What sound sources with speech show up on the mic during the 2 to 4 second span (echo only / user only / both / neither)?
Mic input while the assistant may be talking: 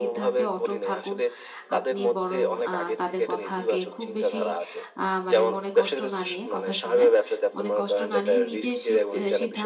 both